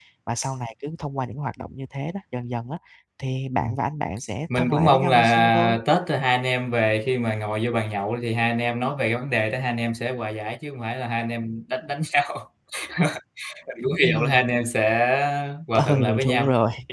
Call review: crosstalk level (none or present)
present